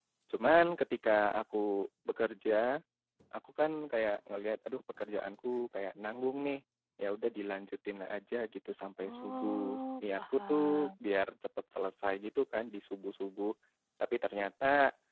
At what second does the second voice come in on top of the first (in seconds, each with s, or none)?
9.0 s